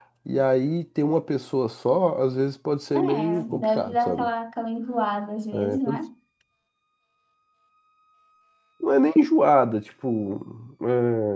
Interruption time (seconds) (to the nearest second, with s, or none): 3 s